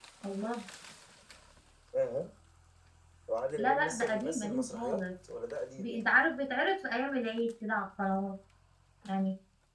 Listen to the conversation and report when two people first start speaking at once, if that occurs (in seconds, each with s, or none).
3.6 s